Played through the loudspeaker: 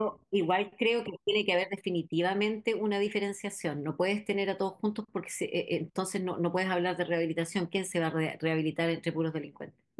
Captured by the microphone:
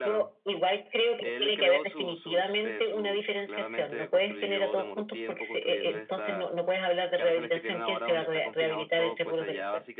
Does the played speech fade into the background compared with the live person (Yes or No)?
No